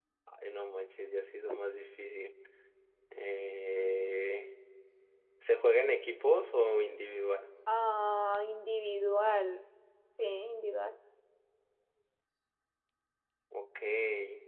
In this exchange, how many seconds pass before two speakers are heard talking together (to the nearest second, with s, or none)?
none